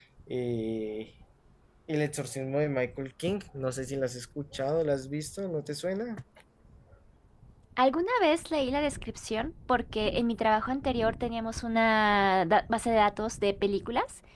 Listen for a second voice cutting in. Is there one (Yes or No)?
No